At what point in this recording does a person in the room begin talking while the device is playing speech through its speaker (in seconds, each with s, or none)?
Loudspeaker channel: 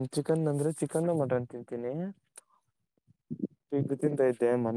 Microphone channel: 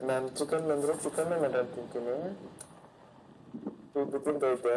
none